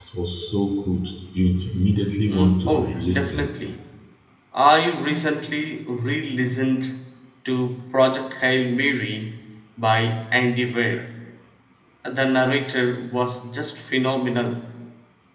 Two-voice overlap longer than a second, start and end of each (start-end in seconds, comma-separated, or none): 2.3-3.5